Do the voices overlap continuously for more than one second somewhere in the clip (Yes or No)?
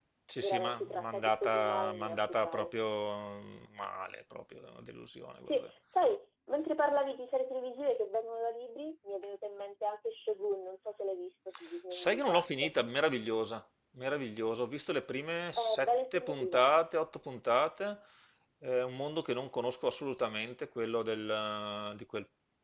Yes